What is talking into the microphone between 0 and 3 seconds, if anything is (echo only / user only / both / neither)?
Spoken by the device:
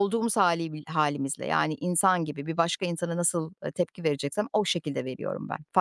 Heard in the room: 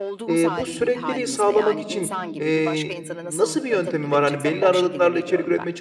both